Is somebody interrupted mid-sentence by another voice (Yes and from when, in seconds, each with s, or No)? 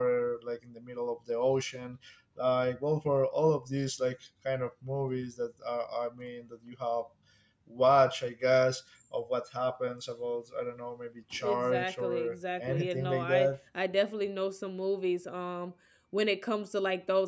Yes, from 11.4 s